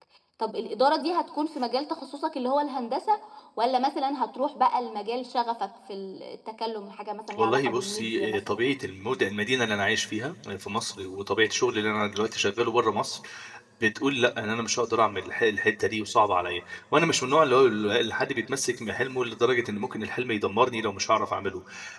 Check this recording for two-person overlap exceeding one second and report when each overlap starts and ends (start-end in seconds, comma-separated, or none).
7.4-8.7